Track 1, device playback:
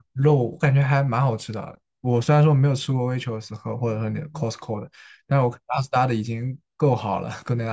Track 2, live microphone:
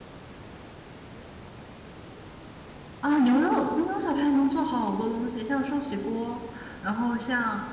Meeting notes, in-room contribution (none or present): present